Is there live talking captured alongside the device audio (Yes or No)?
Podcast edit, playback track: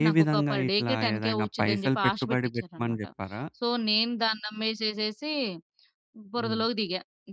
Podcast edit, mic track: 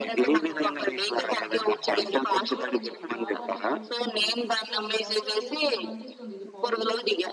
Yes